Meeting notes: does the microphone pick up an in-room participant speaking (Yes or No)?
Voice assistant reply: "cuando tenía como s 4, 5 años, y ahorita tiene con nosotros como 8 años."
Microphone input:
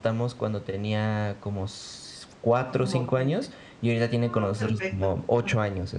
Yes